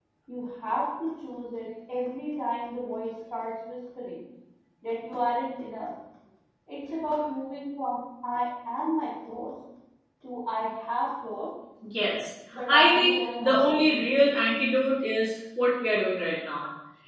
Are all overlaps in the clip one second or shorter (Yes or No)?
No